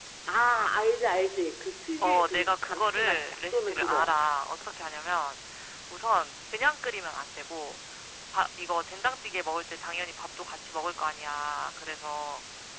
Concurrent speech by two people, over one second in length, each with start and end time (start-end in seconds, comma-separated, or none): 2.0-4.2